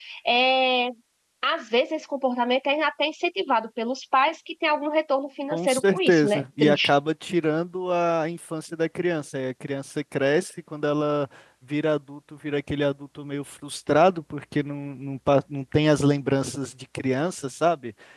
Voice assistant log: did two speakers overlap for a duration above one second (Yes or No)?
Yes